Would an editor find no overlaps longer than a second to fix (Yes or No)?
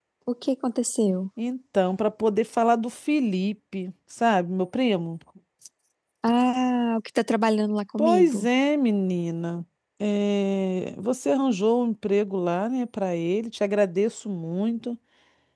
Yes